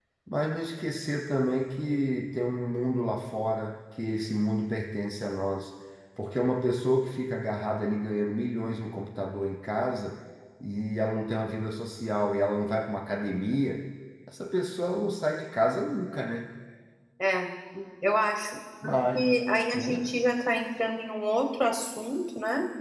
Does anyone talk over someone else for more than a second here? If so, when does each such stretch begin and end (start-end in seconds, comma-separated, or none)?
none